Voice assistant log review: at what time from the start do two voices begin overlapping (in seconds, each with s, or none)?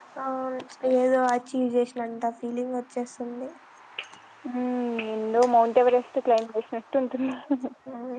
none